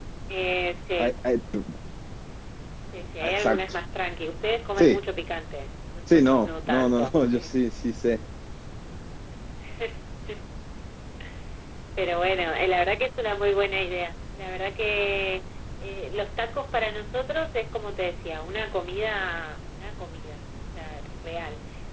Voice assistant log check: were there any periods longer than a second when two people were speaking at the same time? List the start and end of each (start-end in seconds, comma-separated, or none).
6.1-7.5